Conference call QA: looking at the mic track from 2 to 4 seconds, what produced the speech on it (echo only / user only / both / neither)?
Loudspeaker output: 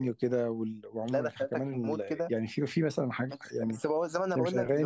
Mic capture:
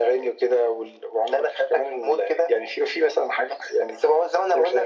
echo only